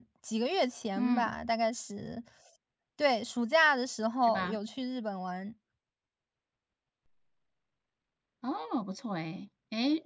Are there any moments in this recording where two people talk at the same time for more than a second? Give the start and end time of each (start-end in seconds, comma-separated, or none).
none